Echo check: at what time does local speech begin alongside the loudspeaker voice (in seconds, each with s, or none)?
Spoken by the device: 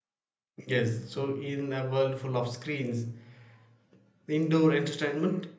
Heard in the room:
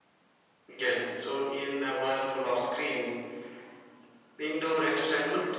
none